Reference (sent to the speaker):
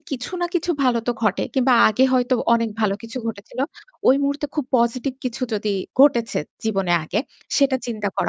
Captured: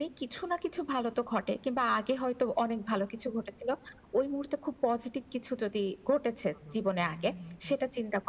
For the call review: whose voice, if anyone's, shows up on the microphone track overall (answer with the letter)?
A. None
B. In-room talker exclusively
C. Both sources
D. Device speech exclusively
C